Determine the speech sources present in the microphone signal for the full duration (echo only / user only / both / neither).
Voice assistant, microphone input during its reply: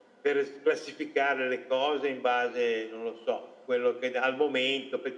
echo only